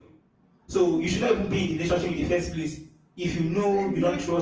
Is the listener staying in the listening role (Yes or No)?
No